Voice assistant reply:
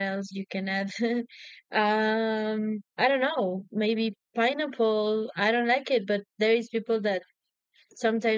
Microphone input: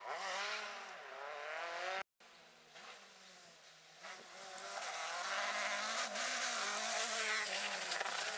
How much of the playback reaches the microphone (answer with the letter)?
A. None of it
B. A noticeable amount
A